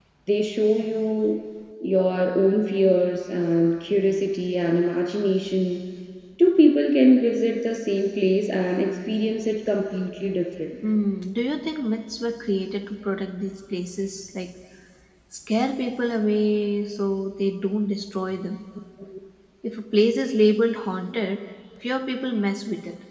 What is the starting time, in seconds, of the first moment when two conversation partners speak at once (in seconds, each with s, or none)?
none